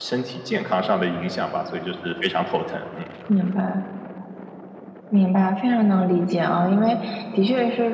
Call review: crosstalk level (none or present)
none